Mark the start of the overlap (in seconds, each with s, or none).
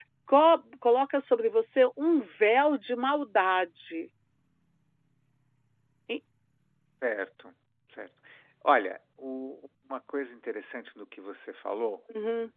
none